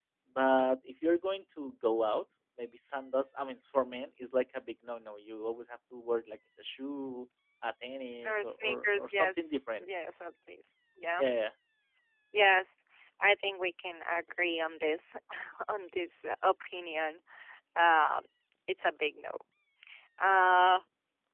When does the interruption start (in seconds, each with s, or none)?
8.2 s